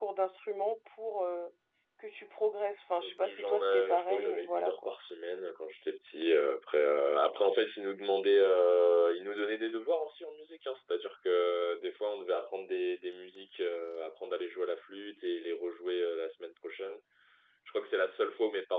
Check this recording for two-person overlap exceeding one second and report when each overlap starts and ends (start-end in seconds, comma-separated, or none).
3.0-4.9